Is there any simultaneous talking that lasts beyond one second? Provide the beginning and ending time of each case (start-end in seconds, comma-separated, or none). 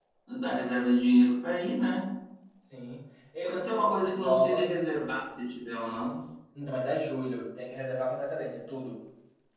3.4-4.6